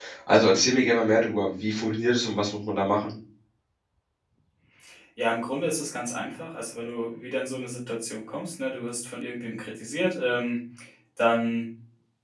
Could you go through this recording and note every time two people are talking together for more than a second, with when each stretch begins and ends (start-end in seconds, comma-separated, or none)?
none